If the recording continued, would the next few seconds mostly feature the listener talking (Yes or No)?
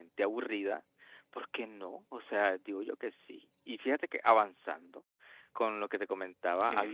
Yes